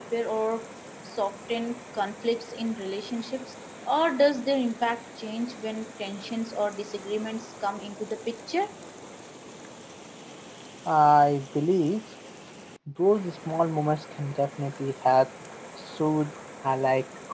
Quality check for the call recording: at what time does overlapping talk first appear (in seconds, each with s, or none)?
none